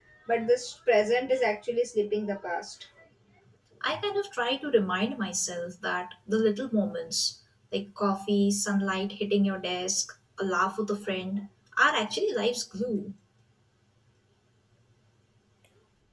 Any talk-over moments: No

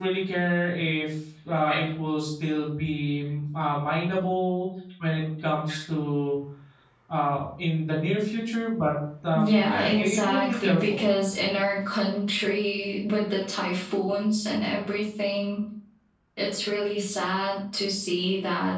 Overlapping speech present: Yes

